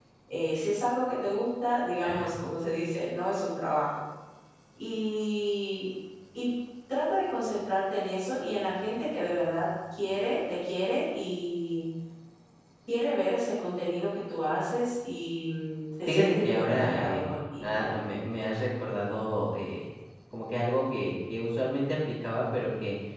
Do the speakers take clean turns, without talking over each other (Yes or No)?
No